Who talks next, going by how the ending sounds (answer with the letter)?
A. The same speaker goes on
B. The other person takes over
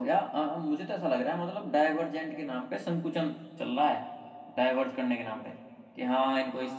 A